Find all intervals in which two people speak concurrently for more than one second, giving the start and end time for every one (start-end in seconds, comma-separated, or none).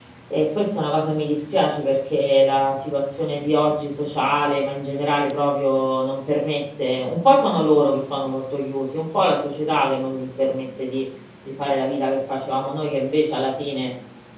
none